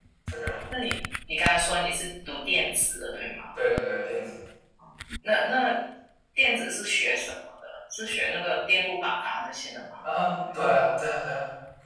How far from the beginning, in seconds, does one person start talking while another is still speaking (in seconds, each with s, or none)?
none